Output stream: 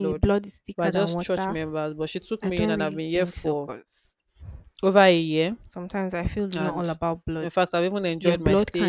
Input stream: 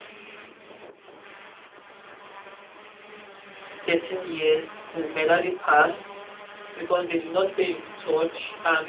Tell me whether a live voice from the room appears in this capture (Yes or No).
Yes